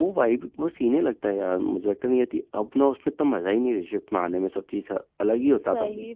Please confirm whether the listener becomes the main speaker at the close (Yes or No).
Yes